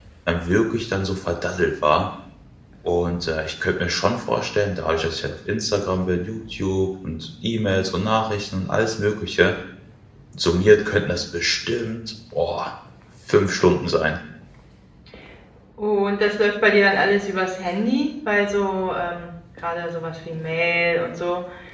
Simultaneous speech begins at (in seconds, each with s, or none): none